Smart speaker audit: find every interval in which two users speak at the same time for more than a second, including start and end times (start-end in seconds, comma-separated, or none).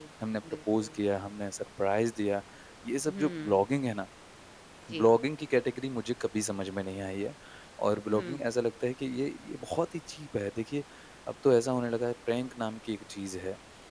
none